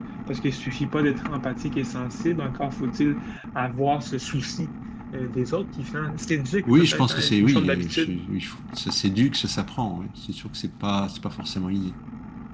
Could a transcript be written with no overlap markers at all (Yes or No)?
No